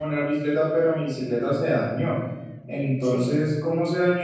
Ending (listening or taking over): listening